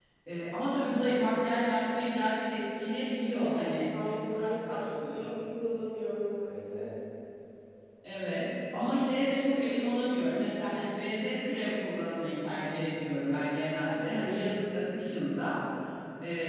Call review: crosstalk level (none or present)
present